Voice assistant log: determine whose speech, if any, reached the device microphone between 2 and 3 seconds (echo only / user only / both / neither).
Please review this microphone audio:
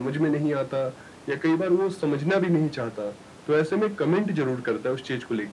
echo only